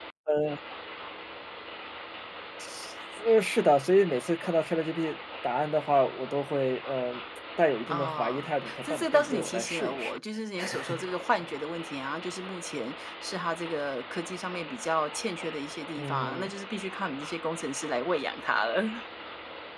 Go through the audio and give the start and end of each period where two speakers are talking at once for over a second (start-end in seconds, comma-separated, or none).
7.9-10.2